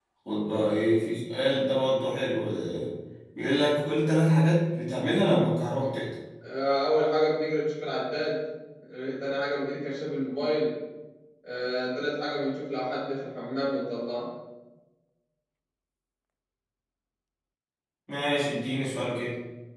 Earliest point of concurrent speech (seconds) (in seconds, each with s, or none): none